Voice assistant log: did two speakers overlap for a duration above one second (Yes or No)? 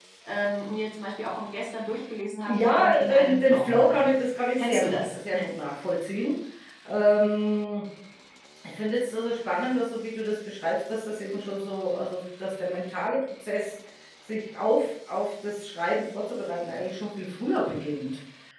Yes